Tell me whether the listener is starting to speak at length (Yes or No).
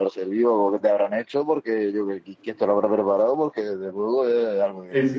Yes